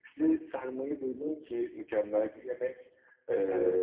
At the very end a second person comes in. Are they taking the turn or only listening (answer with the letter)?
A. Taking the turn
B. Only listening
B